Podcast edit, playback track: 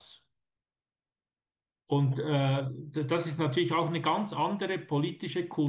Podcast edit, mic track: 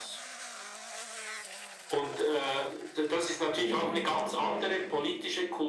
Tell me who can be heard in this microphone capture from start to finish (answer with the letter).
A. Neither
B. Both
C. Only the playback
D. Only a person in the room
B